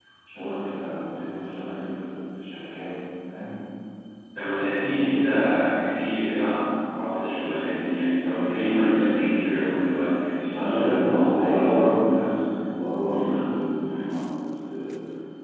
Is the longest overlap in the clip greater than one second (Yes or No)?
Yes